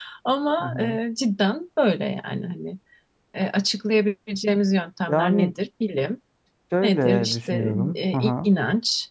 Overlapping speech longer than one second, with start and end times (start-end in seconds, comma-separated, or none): 6.8-8.5